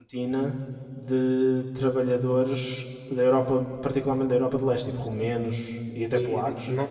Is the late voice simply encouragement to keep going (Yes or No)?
No